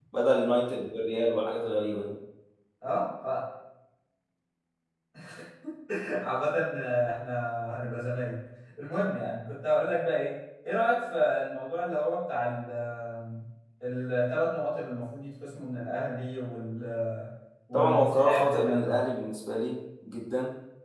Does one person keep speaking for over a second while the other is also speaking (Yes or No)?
Yes